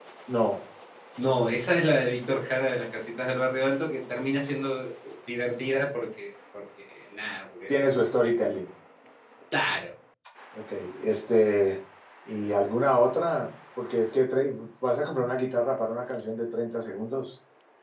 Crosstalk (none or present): none